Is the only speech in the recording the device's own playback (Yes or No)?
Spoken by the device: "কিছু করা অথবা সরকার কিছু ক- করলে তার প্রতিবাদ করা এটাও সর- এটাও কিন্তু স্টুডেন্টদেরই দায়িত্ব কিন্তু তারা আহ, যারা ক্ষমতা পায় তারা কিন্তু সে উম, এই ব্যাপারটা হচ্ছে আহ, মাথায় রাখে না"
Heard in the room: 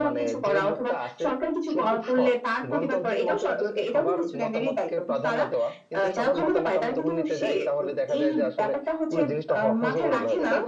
No